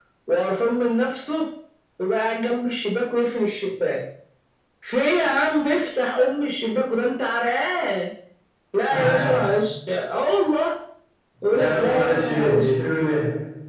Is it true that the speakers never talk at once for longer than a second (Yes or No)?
No